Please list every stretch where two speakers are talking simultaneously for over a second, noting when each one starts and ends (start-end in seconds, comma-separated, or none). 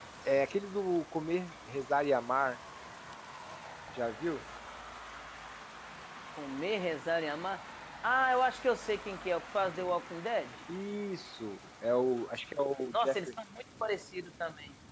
none